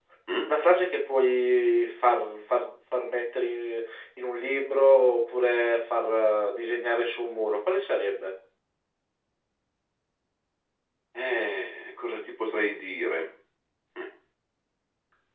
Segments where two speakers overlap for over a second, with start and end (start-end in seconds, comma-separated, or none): none